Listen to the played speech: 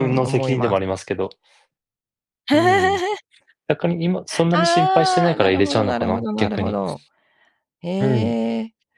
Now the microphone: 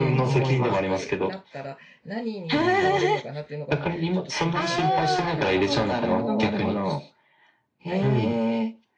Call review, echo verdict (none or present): present